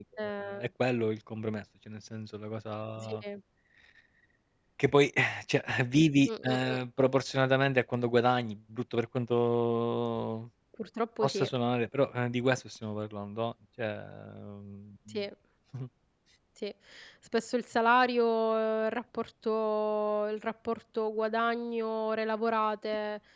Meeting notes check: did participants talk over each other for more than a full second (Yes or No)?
No